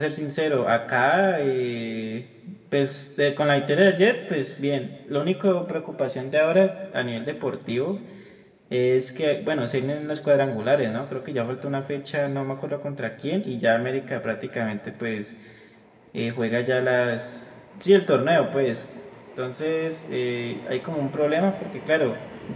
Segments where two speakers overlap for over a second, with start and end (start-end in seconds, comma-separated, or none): none